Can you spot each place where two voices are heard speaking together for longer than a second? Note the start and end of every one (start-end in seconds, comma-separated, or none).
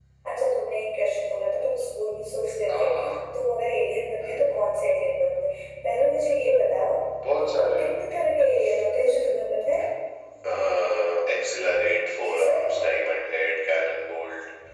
none